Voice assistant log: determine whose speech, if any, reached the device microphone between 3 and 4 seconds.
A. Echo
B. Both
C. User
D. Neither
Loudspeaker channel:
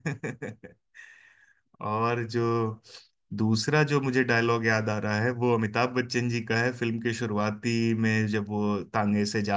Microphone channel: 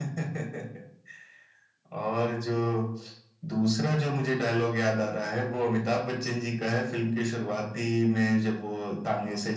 A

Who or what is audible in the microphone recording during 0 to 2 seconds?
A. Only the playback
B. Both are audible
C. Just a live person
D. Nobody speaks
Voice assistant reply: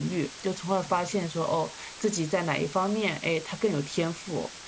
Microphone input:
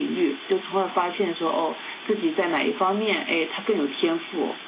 A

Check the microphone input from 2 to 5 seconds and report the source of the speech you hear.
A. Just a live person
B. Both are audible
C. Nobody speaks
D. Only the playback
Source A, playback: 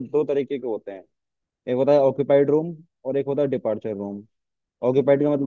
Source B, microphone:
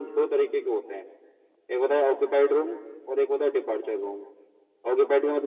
D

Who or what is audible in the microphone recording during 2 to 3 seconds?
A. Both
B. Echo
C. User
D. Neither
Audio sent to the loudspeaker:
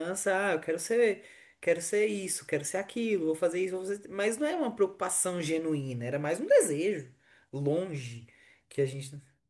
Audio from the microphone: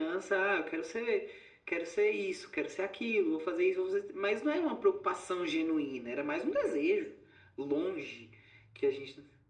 B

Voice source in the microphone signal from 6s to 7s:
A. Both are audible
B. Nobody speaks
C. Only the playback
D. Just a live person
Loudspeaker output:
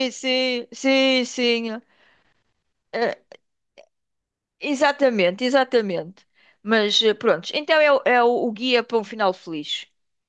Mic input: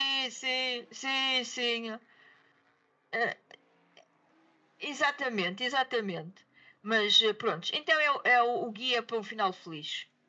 C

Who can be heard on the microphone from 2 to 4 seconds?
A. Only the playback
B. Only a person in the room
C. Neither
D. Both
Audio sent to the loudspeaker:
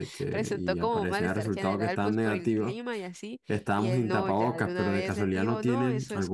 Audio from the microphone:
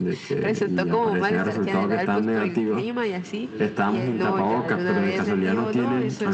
D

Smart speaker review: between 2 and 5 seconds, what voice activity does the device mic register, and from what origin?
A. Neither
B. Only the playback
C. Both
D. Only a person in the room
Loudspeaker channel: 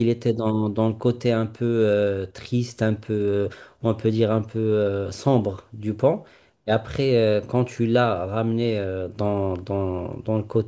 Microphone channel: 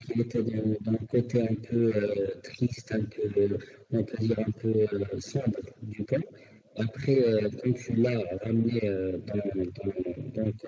B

